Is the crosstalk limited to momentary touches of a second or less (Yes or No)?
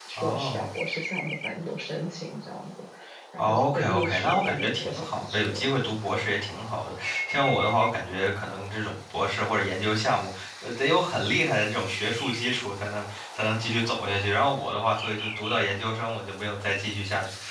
No